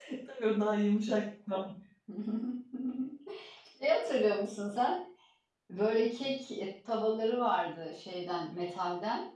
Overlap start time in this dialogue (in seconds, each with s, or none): none